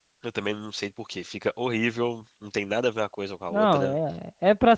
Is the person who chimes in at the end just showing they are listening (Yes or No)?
No